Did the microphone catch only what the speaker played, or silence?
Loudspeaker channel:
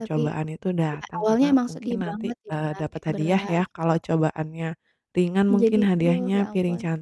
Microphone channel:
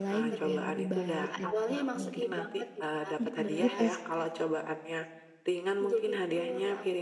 No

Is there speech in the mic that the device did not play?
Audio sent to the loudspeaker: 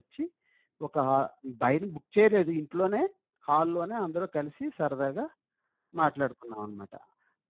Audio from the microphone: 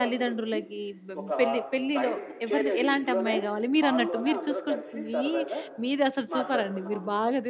Yes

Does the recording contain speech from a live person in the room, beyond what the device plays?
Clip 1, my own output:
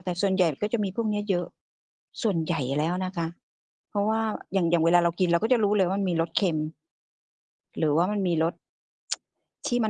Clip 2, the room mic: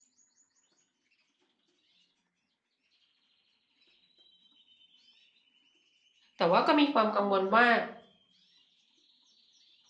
Yes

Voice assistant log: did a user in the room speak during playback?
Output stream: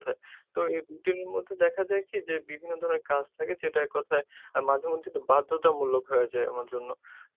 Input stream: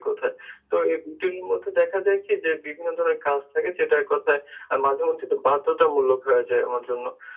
No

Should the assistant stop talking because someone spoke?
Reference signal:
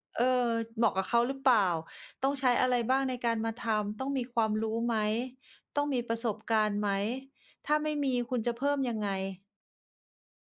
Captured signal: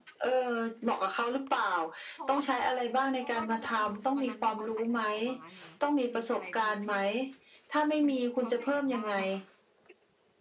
Yes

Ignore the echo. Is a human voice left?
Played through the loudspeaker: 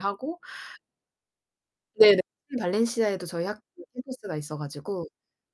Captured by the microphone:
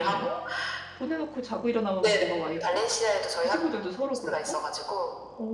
Yes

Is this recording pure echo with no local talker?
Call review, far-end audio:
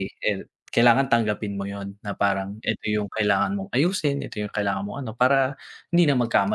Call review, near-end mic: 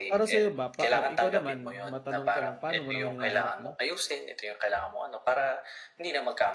No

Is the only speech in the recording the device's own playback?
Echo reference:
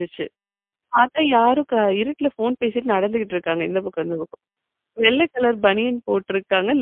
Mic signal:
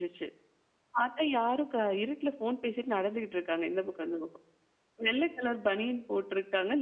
Yes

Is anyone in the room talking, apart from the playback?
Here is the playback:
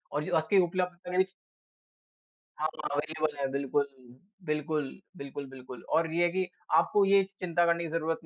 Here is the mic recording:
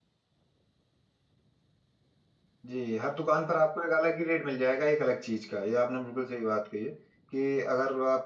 Yes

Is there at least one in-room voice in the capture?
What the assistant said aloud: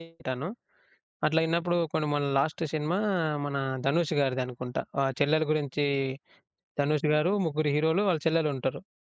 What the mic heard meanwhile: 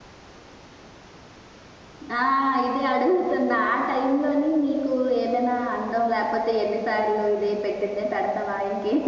Yes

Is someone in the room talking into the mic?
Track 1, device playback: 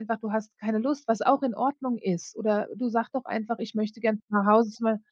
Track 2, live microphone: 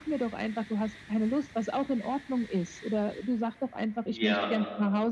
Yes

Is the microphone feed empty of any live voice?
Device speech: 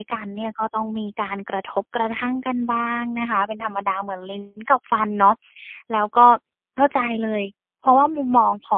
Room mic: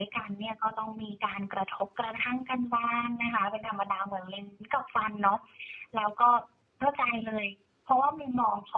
Yes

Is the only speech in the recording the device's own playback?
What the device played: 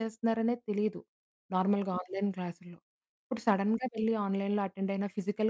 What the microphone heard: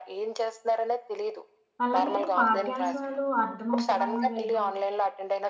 No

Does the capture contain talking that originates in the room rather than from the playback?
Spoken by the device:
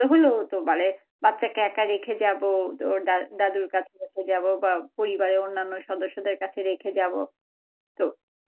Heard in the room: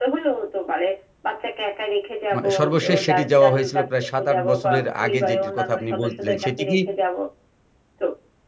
Yes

